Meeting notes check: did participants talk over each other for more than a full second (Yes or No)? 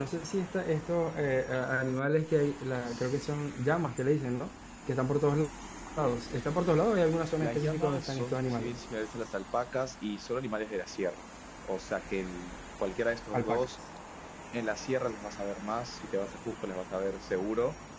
Yes